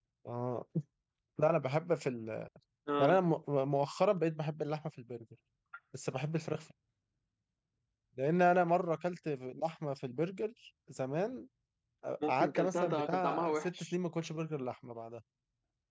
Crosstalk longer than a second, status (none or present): present